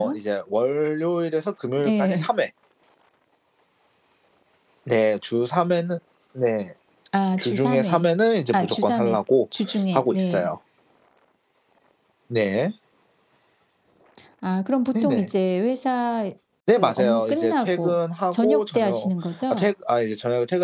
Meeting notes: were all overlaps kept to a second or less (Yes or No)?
No